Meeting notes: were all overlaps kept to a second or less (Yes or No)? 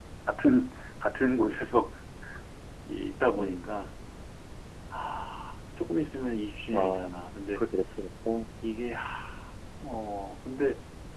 Yes